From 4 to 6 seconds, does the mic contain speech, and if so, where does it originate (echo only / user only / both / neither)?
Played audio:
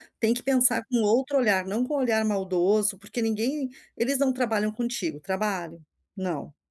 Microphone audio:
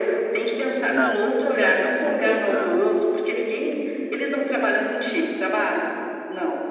echo only